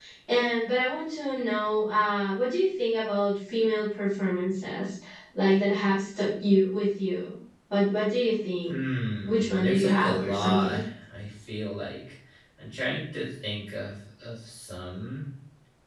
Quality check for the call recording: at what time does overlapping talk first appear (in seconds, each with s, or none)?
9.2 s